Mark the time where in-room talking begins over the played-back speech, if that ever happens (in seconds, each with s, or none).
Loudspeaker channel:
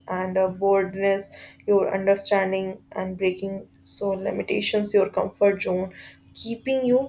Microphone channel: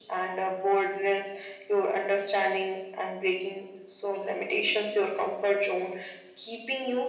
none